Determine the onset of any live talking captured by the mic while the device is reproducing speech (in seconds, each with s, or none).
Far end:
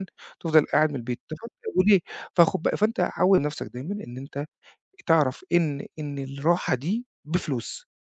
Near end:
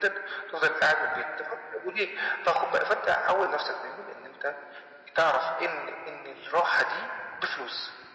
none